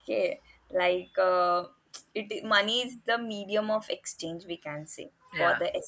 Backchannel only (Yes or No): Yes